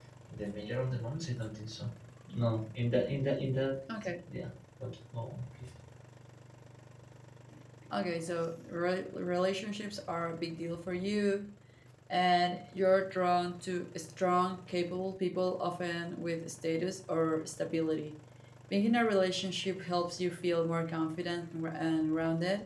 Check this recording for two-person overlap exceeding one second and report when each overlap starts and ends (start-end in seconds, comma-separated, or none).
none